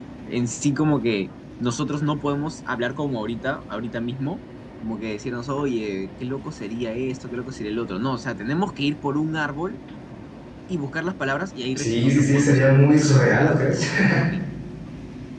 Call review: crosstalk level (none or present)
present